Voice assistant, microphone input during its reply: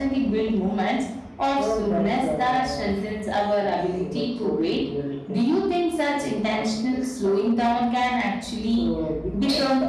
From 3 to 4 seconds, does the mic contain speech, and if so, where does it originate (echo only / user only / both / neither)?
echo only